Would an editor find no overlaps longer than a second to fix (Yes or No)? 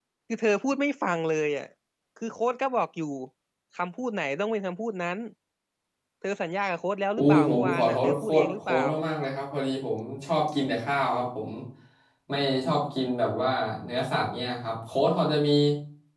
No